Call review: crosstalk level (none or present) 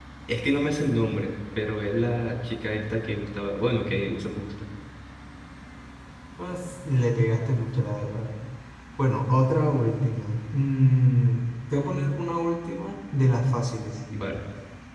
none